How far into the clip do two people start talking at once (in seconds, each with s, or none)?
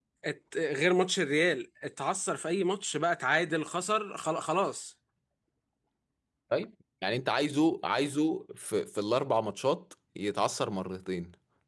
none